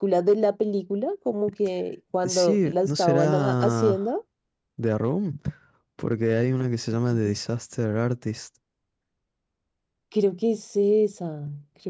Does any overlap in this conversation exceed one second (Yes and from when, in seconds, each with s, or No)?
Yes, from 2.2 s